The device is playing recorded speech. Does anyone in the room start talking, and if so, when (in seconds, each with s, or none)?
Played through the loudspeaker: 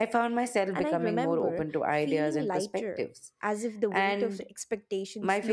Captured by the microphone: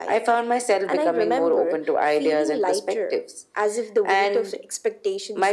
none